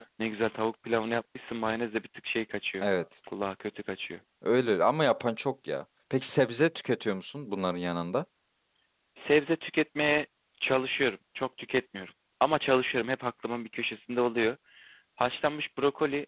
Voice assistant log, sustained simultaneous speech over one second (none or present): none